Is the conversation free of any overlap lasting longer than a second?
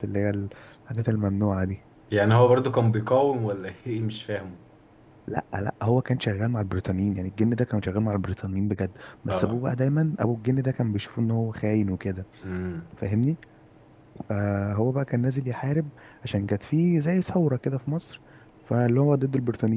Yes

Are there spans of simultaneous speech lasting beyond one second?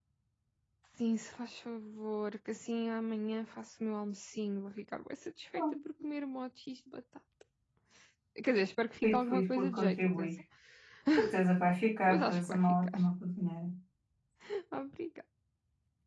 Yes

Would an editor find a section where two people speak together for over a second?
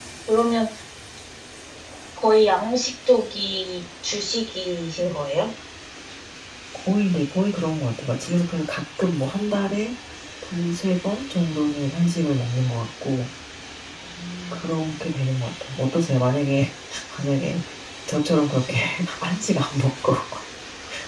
No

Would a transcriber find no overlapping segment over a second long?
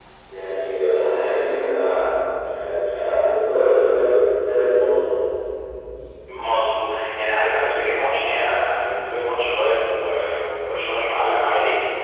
Yes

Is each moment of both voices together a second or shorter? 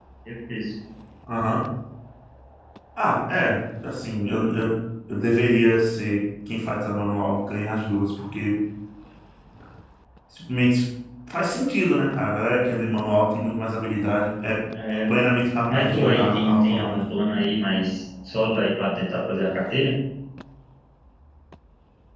No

